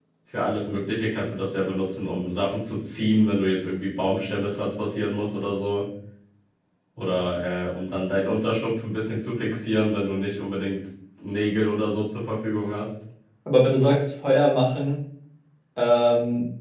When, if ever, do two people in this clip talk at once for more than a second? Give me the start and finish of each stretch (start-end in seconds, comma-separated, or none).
none